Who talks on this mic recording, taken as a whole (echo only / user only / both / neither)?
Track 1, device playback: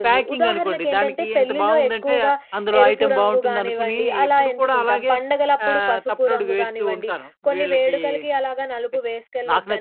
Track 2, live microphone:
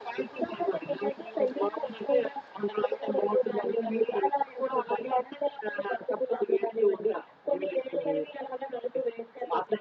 echo only